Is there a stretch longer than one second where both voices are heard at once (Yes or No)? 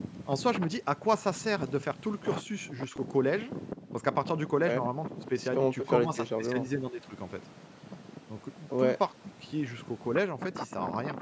Yes